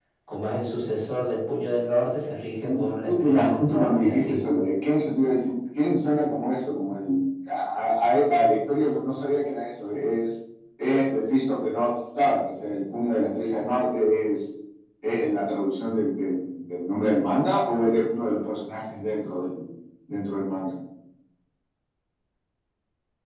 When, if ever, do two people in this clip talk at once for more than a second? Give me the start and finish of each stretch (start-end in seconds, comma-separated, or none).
3.1-4.4